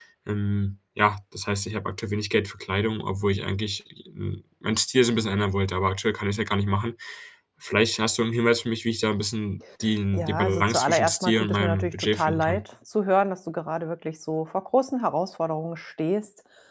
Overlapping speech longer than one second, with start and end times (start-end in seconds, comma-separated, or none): 10.1-12.6